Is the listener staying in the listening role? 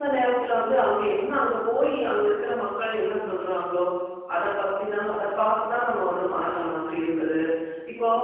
Yes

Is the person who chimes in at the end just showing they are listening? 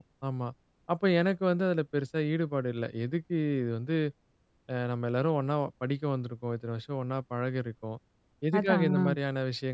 Yes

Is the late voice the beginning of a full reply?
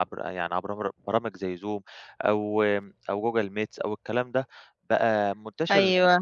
No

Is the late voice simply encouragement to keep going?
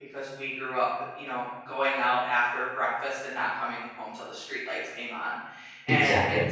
Yes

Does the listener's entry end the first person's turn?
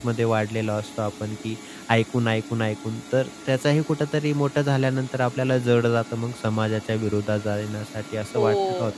Yes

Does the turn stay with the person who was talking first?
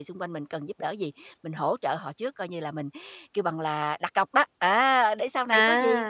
Yes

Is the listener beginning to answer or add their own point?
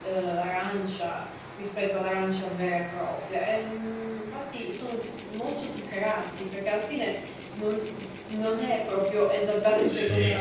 Yes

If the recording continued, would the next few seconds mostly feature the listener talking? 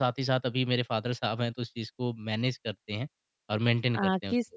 Yes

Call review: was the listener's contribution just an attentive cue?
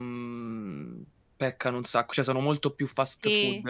No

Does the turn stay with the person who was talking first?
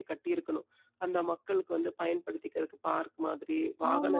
No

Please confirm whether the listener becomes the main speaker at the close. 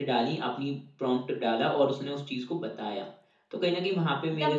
Yes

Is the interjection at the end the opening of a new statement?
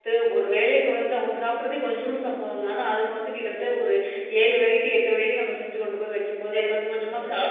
Yes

